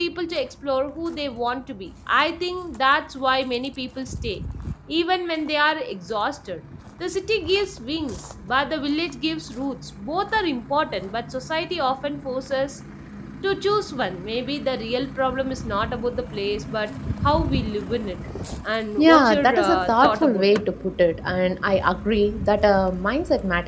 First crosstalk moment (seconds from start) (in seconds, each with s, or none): 19.0 s